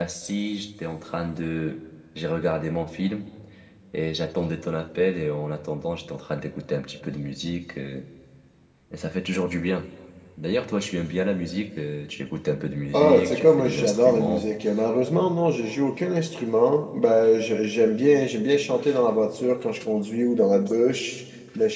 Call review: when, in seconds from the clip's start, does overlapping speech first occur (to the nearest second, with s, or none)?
13 s